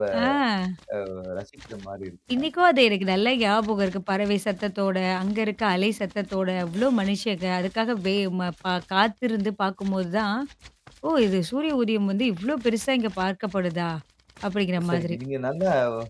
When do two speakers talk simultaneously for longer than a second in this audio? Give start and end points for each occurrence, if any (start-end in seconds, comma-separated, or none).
none